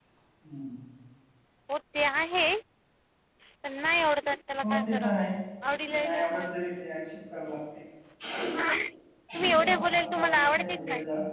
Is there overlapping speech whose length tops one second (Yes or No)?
Yes